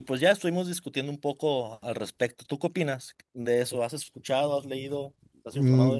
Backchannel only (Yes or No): No